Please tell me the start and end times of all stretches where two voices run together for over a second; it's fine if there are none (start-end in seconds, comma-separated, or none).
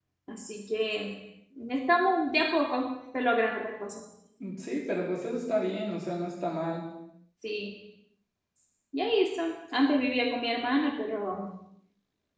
none